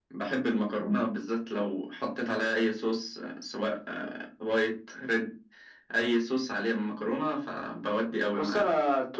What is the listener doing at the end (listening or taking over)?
taking over